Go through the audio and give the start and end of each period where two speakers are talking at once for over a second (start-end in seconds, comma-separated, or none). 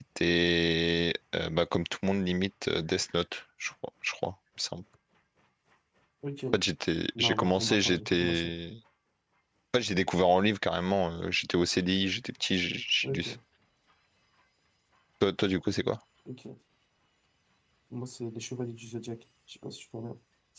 7.2-8.5